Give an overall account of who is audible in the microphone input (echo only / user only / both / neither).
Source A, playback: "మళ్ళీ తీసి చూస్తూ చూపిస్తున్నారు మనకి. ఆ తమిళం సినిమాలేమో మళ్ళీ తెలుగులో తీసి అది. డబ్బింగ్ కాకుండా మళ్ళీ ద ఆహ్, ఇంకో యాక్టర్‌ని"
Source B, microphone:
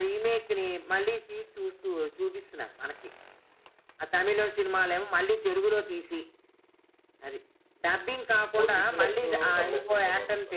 both